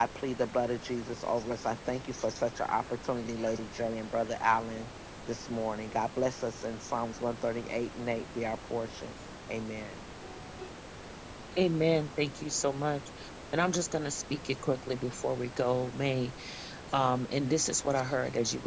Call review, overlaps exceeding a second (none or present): none